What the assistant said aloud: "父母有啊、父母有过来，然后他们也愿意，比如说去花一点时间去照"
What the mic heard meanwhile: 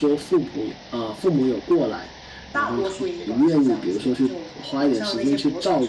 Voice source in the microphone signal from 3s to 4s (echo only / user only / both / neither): both